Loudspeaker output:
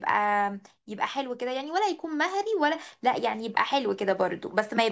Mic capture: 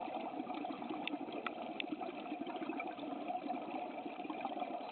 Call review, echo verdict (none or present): none